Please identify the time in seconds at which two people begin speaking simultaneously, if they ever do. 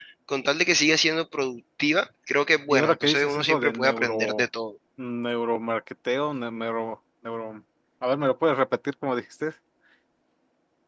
2.7 s

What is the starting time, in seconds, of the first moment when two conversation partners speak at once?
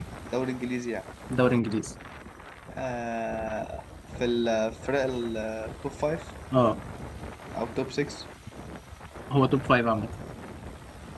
none

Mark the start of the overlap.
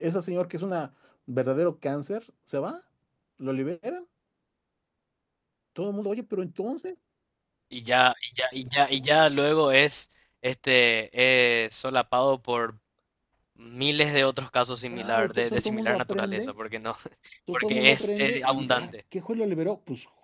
14.9 s

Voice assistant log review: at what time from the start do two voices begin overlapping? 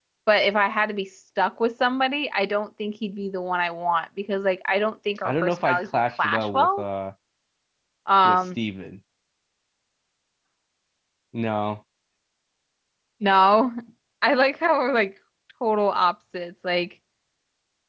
5.2 s

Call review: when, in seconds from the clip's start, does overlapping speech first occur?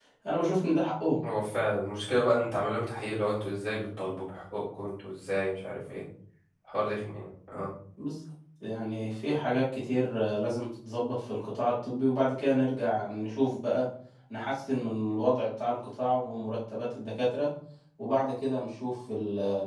none

